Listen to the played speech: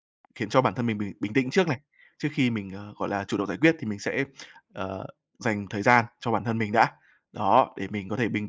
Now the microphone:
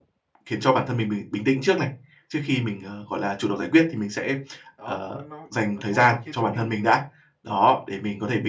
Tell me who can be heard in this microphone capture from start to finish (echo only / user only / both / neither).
both